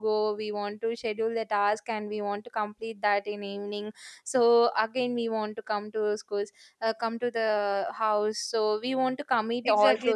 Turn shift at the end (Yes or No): Yes